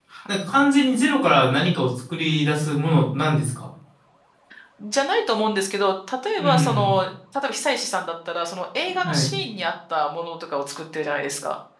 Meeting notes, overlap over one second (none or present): none